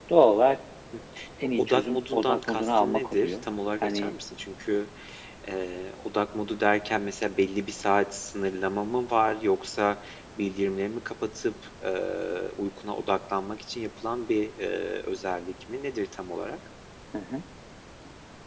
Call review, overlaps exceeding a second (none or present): present